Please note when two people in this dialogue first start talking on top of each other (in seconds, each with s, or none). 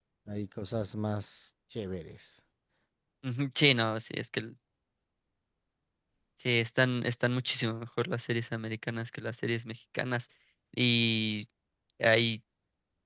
none